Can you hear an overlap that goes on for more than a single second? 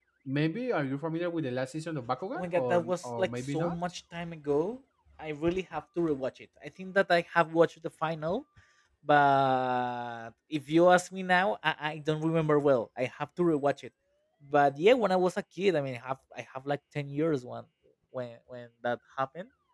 Yes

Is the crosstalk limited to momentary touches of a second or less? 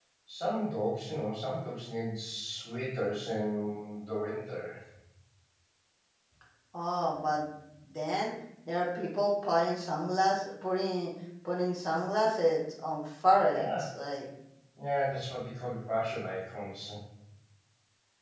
Yes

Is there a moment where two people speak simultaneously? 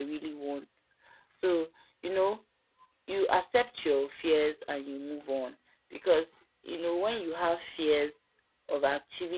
No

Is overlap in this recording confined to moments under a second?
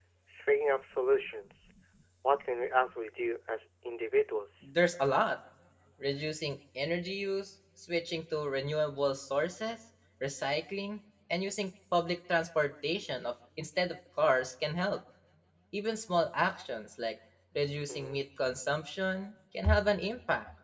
Yes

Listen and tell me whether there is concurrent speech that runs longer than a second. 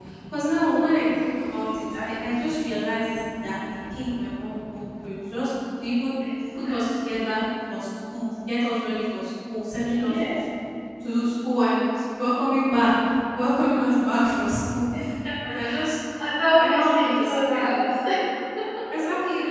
Yes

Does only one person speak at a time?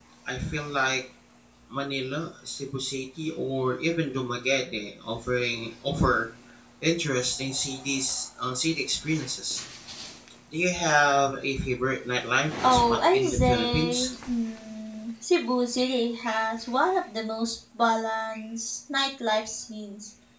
No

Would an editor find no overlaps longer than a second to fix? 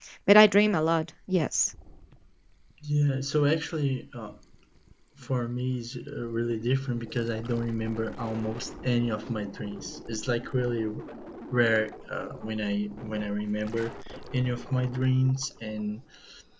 Yes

